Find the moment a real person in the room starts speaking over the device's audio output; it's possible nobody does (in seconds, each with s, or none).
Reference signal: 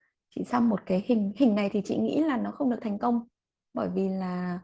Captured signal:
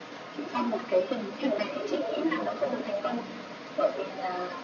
none